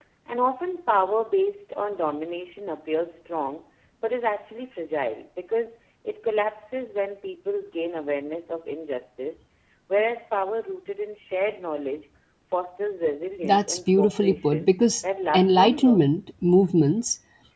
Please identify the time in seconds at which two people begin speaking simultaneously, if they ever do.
13 s

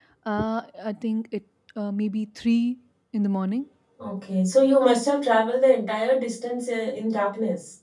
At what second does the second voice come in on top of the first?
none

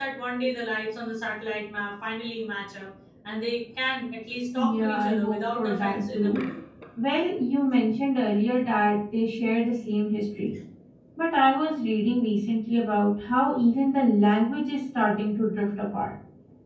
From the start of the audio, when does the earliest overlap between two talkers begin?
5 s

